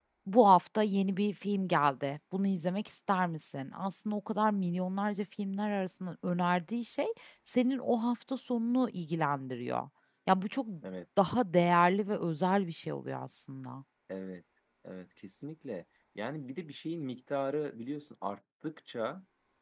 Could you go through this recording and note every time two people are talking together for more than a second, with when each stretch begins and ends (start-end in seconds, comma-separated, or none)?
none